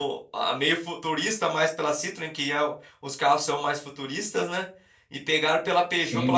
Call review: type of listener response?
listening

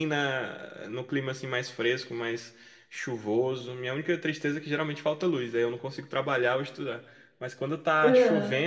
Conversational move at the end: listening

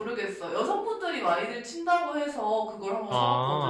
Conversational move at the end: taking over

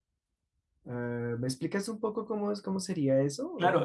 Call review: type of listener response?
taking over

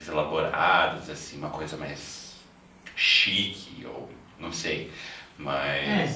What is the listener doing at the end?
taking over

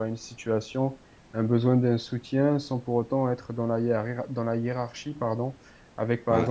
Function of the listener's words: listening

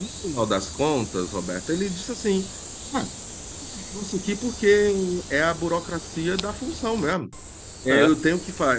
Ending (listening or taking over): listening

